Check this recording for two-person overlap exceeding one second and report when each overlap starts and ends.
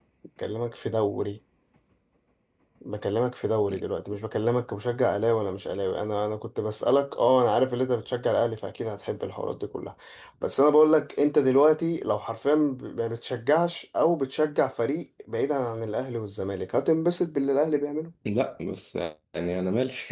none

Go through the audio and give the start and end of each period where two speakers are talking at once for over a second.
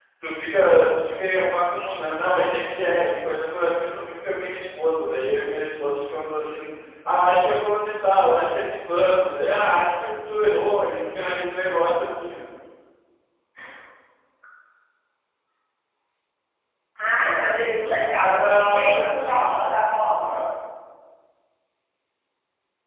18.2-19.6

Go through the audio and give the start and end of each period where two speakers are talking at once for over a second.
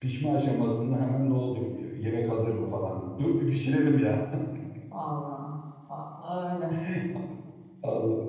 none

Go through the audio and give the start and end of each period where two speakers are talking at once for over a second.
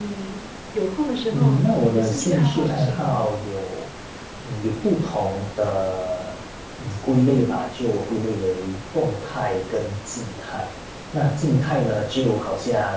1.3-3.2

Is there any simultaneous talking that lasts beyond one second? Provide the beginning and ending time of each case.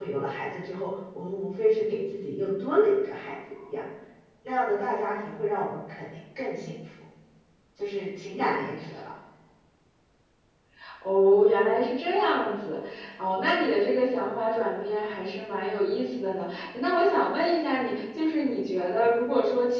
none

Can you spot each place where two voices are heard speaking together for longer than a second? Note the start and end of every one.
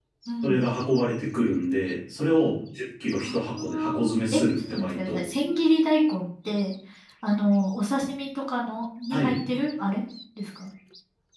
3.2-5.2

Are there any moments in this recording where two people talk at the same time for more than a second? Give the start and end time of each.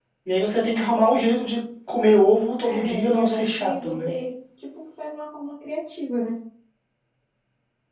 2.6-4.1

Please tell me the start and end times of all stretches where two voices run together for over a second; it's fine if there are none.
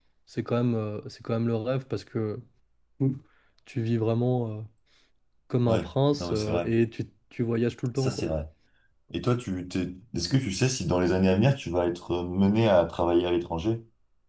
none

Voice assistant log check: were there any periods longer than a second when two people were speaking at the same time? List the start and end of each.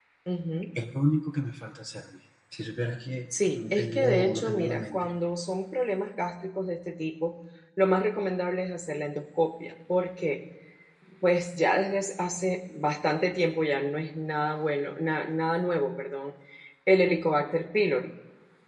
3.5-5.1

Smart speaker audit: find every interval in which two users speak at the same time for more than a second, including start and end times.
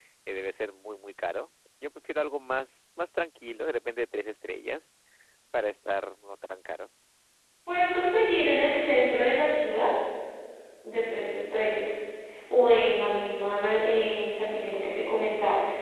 none

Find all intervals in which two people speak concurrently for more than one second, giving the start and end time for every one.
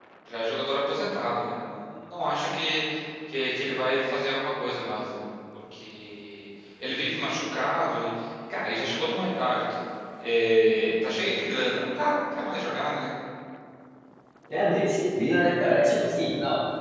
none

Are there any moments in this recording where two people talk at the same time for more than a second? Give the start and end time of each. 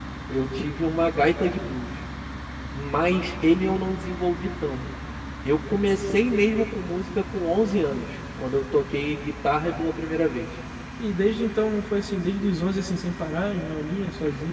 none

